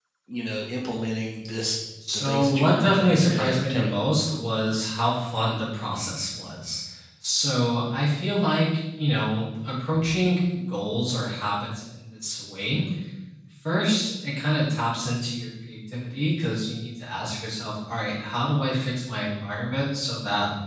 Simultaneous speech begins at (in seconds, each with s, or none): 2.0 s